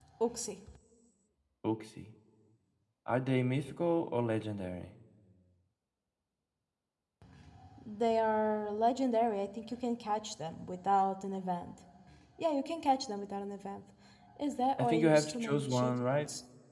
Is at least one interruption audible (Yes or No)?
Yes